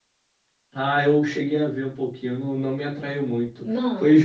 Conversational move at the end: listening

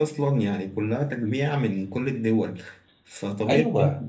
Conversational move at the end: listening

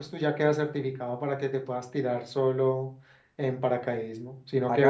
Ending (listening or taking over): taking over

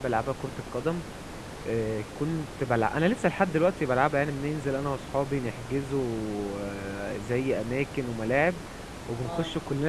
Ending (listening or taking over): listening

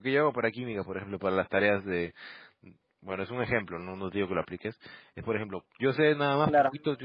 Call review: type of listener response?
listening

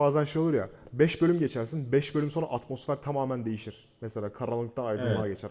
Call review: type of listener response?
listening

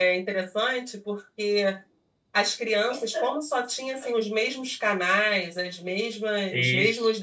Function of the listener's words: listening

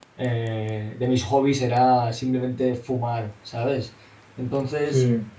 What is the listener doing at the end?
listening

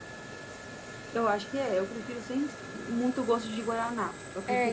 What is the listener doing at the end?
taking over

